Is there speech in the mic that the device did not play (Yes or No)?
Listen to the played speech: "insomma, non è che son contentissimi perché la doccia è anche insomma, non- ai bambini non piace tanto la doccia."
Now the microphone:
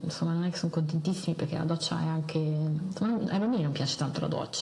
No